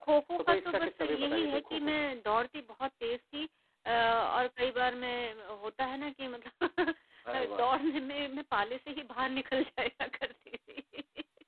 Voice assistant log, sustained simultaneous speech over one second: present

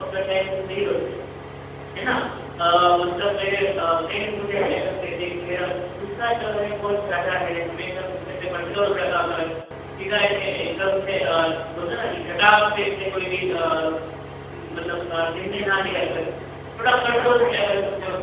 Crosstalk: present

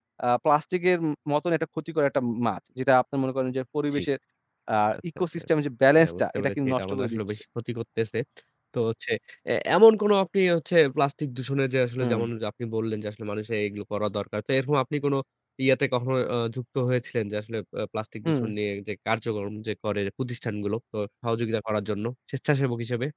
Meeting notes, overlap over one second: present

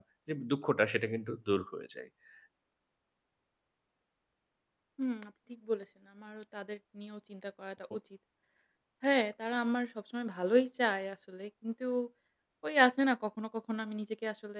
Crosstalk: none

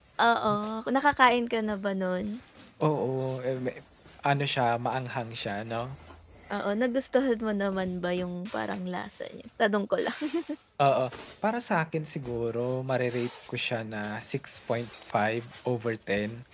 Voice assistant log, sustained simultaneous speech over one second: none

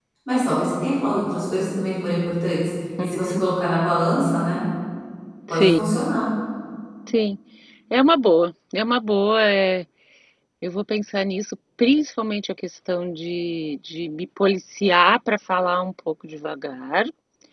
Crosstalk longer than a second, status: none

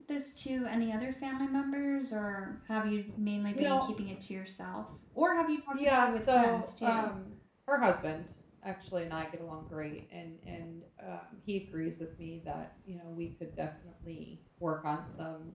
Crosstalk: present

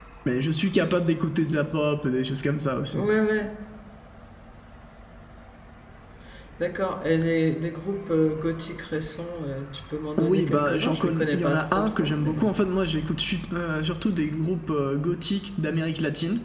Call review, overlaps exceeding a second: present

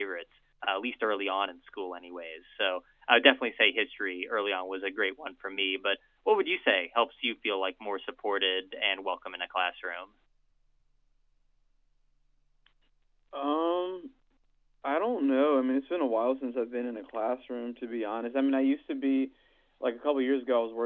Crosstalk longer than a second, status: none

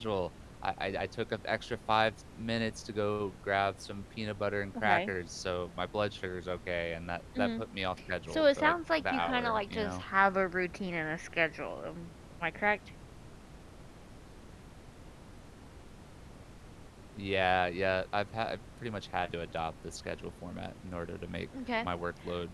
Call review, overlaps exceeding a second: present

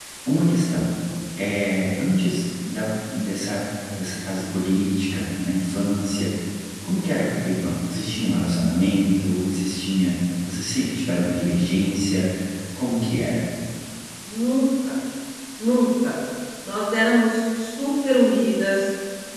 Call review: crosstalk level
none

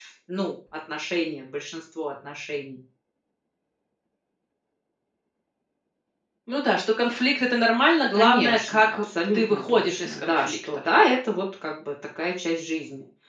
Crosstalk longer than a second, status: present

